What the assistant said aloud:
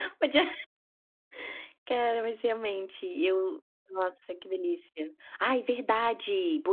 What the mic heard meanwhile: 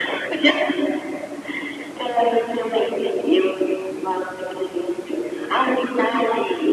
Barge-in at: none

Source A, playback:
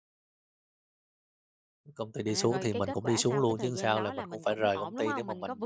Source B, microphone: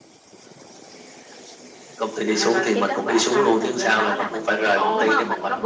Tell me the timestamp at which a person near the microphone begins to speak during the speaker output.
4.8 s

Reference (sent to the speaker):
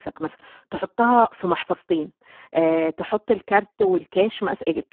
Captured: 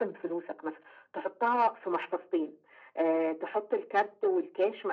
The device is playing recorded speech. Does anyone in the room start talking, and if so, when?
none

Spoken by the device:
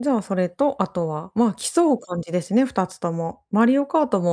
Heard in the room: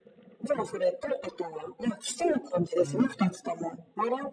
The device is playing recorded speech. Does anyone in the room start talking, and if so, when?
2.8 s

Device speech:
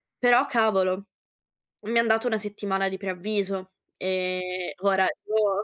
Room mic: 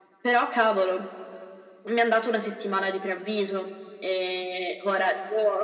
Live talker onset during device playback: none

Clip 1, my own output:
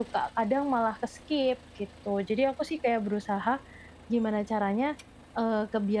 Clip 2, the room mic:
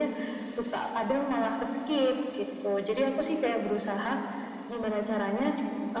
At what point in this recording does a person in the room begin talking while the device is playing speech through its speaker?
none

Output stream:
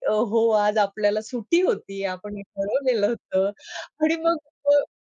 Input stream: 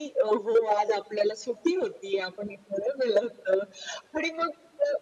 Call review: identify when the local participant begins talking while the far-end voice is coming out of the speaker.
none

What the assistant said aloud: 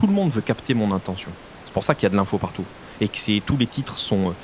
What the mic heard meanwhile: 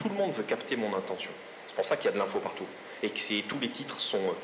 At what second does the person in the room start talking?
none

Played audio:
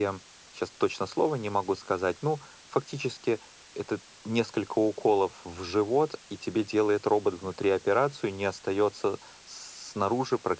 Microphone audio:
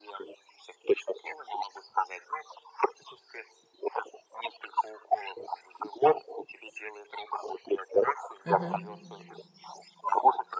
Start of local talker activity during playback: 8.4 s

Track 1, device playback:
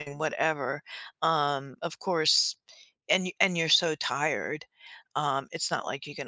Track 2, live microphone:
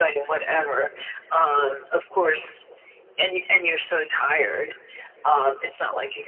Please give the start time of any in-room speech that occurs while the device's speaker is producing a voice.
none

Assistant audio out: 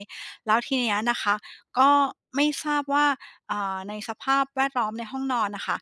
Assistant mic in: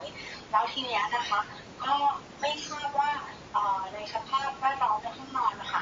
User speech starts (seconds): none

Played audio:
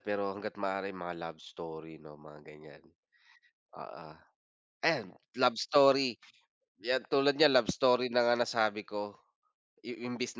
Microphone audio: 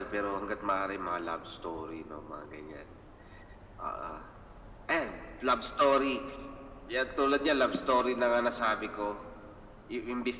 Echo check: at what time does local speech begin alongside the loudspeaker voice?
none

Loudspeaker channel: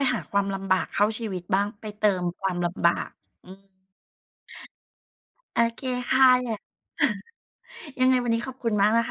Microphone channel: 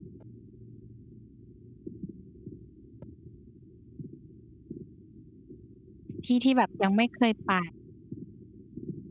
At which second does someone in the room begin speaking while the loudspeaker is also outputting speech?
6.2 s

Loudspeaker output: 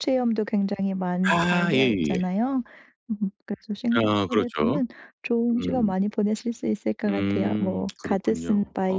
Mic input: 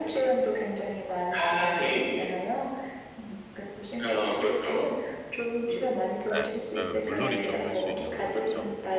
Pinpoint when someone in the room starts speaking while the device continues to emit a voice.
6.3 s

